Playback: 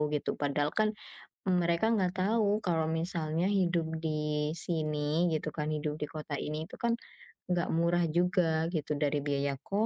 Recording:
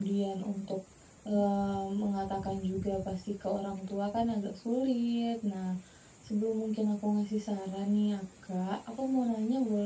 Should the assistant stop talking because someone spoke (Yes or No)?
Yes